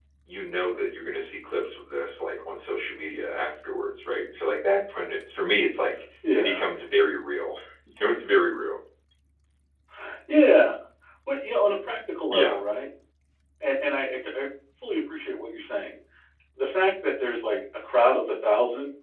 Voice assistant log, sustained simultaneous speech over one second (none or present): none